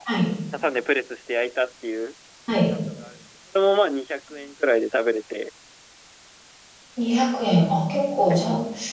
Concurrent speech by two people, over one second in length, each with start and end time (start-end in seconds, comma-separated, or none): none